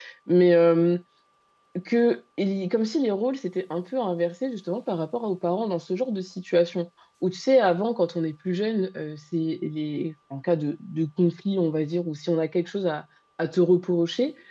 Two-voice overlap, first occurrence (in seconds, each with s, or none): none